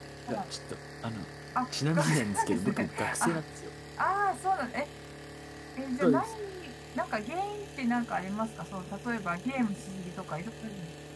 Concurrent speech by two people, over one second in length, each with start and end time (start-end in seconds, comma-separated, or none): 1.9-3.4